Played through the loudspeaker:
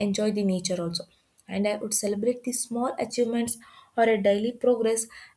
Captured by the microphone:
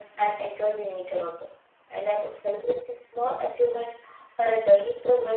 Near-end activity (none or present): none